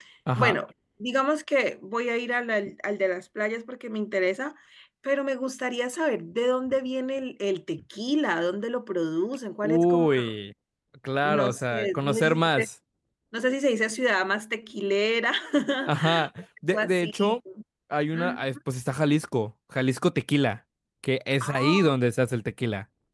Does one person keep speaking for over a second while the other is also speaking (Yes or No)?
Yes